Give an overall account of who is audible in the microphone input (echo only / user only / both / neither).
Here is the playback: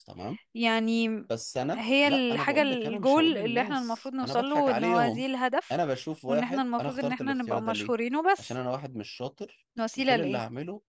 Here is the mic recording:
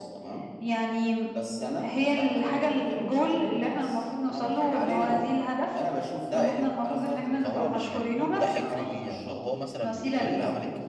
both